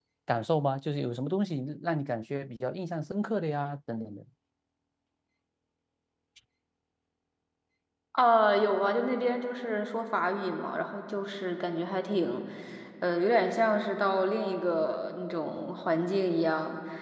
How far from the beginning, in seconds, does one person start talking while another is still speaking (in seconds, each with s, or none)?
none